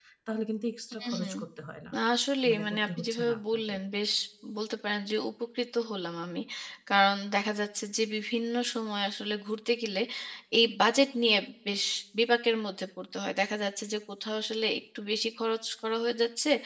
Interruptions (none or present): present